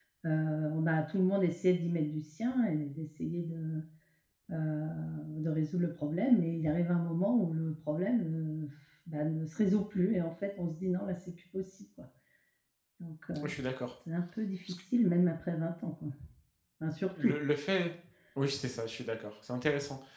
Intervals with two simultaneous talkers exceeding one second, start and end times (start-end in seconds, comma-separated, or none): none